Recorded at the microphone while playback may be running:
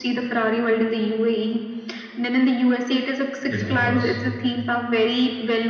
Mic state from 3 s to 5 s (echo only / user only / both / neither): both